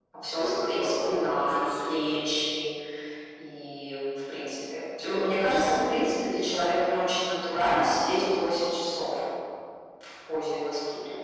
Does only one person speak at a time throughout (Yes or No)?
No